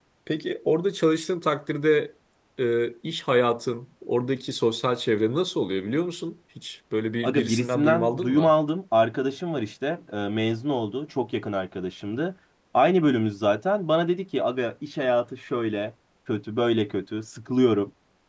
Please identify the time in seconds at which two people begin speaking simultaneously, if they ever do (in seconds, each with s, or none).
7.2 s